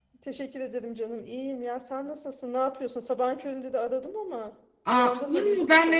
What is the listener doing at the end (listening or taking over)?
taking over